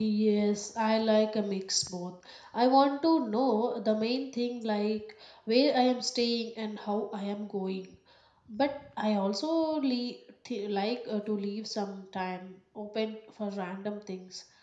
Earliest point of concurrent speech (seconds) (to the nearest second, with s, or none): none